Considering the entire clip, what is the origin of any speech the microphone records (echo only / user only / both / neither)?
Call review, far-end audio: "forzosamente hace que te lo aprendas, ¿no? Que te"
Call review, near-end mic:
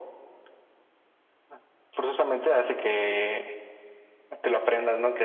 echo only